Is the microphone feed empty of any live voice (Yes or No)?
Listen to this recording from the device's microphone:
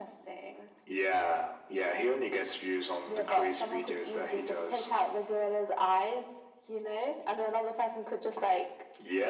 Yes